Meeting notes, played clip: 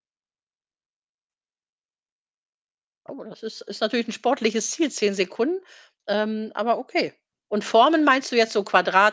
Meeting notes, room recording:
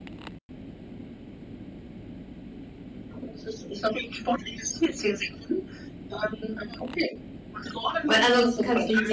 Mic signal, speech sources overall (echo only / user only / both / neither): both